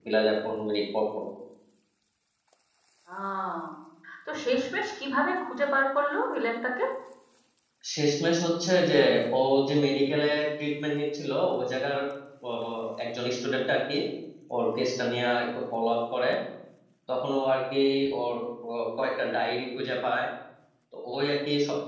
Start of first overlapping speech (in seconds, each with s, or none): none